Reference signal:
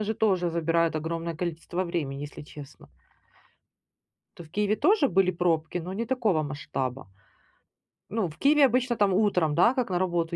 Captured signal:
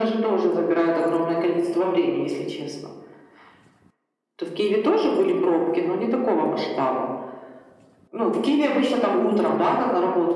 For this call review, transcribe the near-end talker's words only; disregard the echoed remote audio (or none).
none